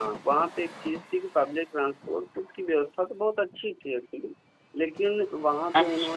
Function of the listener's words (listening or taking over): listening